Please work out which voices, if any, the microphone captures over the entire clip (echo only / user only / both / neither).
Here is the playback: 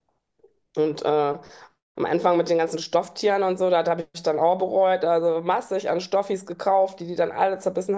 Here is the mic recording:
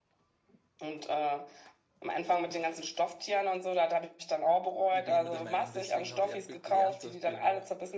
both